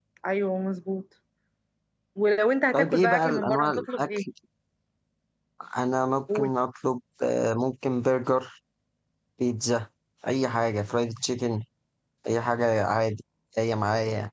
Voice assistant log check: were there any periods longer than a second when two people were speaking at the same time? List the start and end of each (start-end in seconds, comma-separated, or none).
2.7-4.2